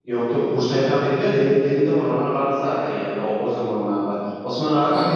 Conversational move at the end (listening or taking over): listening